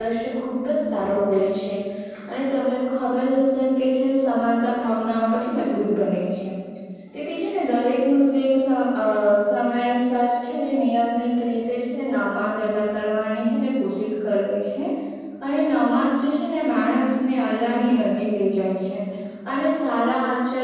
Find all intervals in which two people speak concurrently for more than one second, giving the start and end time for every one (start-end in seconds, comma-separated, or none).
none